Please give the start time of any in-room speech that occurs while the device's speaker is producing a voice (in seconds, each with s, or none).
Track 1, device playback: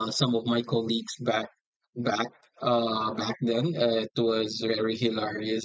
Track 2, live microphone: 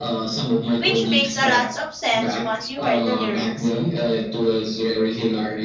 0.8 s